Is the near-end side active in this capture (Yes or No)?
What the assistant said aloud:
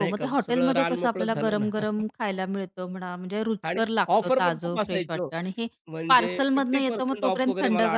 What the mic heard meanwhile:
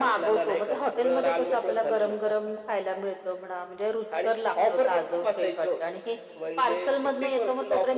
No